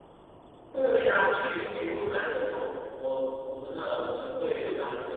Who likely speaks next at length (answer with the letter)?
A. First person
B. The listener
A